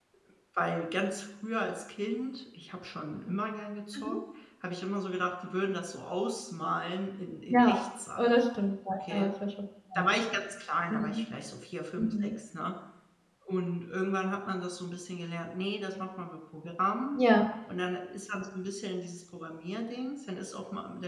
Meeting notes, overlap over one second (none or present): none